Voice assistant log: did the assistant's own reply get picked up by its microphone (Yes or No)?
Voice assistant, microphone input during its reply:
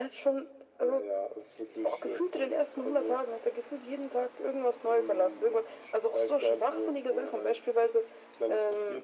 Yes